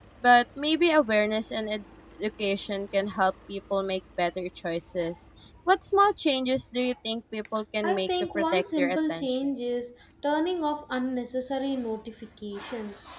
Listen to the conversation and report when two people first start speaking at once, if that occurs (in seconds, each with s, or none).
7.8 s